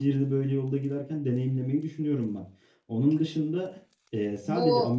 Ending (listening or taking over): listening